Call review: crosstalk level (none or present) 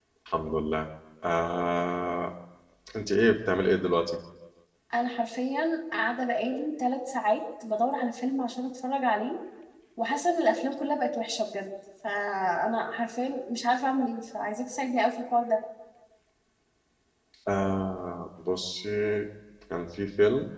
none